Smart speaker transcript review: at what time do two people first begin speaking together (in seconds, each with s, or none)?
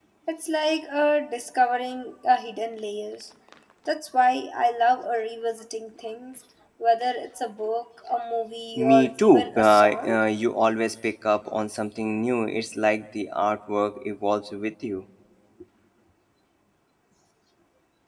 8.8 s